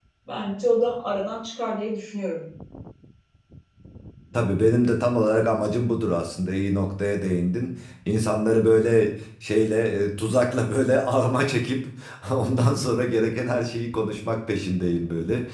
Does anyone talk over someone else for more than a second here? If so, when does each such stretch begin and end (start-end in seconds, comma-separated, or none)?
none